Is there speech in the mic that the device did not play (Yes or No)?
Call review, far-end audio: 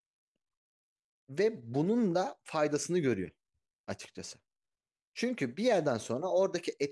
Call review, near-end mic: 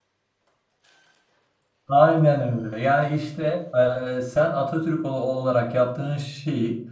Yes